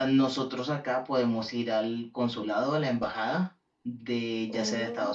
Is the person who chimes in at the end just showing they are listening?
Yes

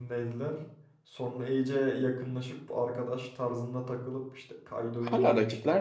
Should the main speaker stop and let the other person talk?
Yes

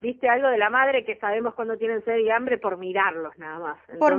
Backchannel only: No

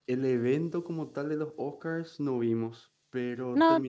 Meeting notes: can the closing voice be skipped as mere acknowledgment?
Yes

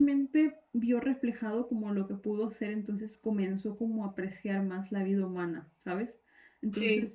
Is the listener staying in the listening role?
Yes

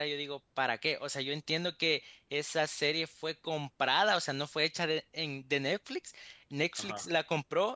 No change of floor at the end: Yes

